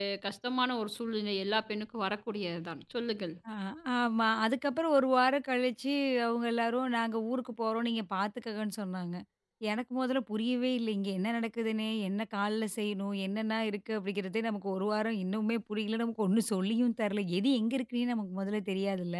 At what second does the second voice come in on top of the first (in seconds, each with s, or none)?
none